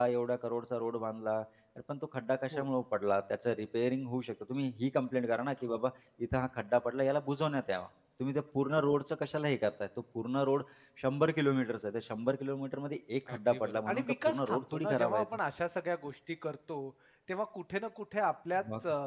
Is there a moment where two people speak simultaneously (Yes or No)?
Yes